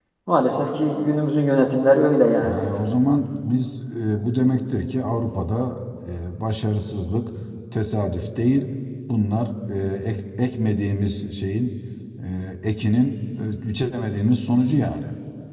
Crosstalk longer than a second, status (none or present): none